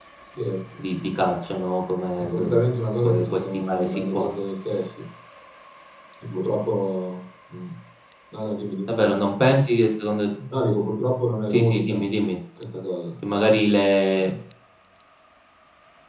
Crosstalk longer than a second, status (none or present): present